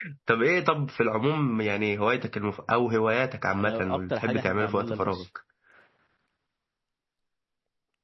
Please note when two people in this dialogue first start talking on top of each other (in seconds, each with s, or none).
3.5 s